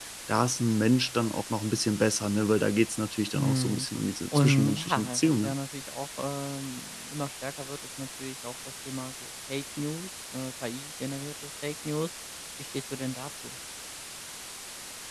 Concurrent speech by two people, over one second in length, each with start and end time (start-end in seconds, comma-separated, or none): 4.3-5.5